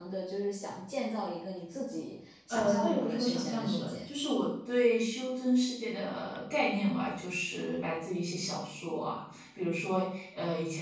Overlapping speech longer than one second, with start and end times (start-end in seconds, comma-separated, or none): 2.5-4.0